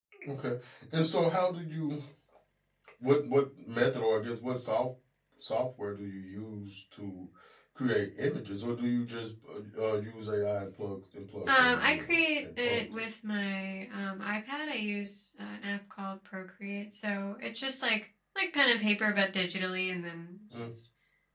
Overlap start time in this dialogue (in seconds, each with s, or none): 11.5 s